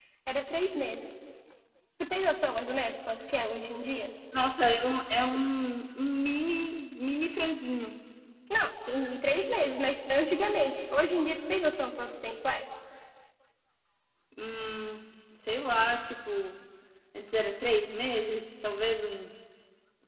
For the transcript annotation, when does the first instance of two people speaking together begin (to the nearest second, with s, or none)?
none